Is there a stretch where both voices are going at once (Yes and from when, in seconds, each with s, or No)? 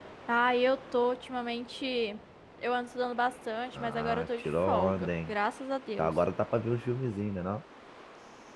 Yes, from 3.8 s